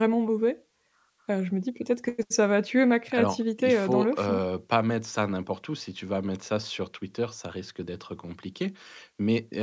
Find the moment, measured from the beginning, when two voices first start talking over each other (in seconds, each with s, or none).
3.1 s